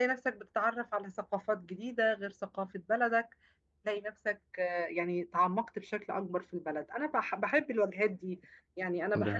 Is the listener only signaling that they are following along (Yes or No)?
Yes